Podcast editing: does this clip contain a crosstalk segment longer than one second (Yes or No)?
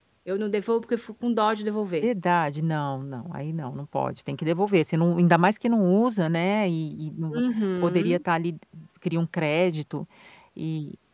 No